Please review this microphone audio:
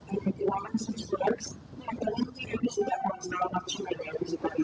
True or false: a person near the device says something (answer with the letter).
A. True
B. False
B